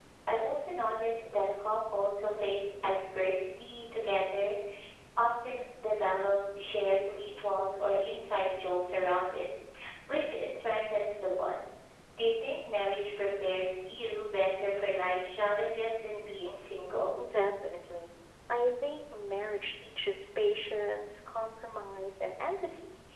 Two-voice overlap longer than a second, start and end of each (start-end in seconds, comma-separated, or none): none